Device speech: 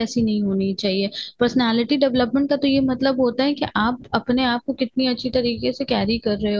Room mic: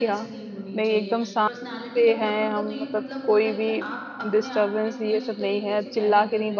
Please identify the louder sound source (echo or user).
user